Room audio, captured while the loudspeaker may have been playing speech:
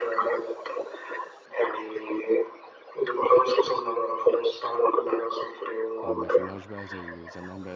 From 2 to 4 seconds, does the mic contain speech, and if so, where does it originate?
echo only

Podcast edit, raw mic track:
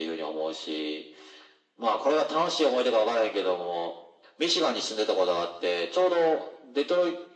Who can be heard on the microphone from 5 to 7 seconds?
echo only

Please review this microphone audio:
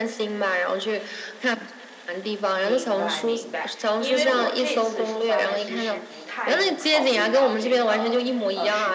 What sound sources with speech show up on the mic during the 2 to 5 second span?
both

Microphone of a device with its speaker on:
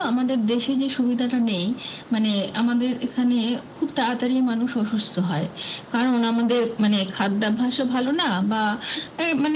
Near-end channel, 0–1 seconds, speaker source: echo only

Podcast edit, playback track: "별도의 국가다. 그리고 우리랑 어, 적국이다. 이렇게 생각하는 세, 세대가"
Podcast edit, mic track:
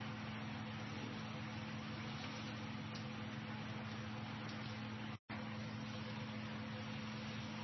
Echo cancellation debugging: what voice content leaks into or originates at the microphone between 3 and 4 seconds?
neither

